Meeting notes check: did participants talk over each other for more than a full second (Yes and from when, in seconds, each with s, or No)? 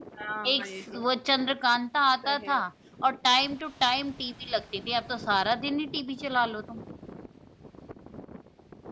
No